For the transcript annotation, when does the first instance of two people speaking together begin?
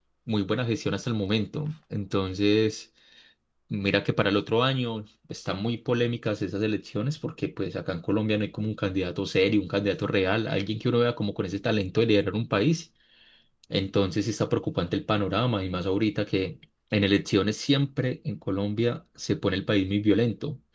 none

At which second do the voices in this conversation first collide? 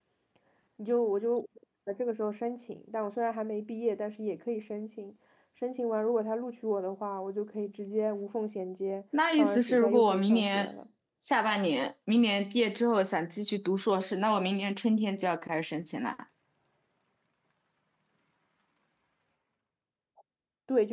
9.4 s

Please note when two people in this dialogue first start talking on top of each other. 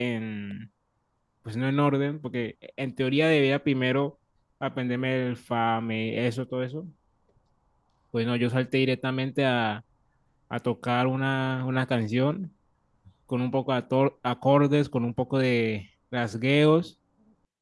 none

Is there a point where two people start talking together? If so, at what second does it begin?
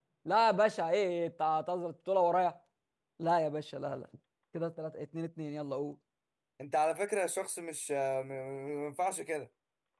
none

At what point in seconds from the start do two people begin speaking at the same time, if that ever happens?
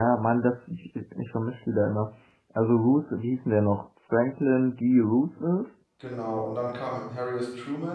none

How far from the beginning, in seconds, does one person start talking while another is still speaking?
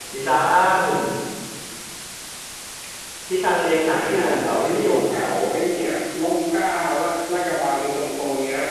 3.9 s

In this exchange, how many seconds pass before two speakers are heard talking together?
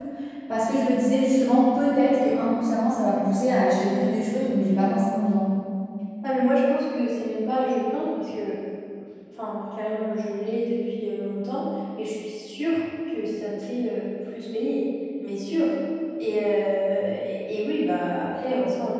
none

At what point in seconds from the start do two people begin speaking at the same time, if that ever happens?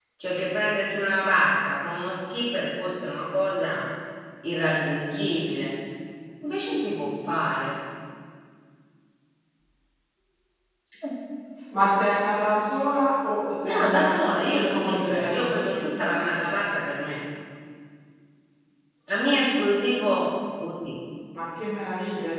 13.6 s

